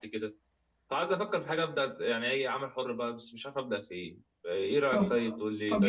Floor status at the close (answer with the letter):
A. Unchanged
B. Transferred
B